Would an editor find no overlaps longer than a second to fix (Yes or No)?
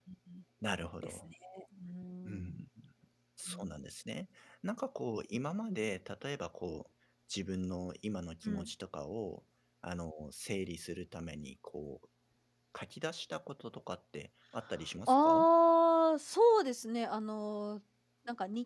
Yes